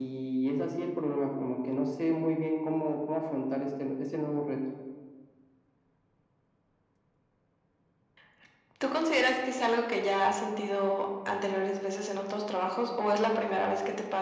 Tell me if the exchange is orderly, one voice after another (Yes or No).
Yes